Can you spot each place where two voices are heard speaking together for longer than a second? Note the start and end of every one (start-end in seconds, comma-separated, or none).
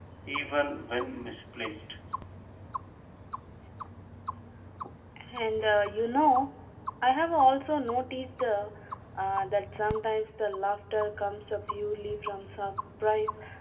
none